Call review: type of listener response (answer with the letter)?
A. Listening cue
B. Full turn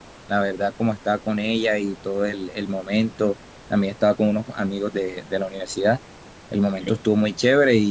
A